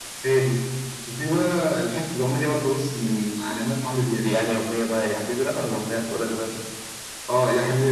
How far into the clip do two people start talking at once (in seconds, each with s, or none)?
none